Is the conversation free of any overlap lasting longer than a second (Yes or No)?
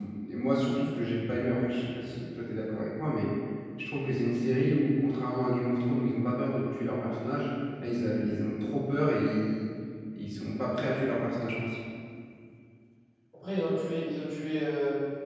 Yes